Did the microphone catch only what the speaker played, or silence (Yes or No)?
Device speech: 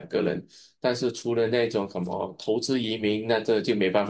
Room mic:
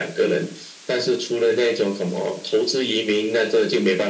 Yes